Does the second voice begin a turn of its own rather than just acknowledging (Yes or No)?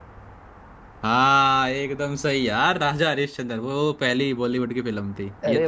Yes